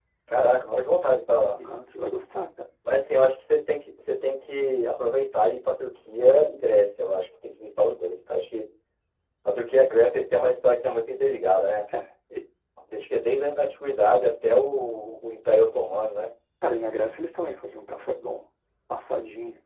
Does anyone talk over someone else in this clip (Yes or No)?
No